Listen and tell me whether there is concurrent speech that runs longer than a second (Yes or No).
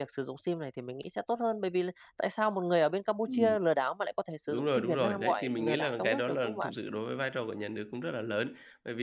Yes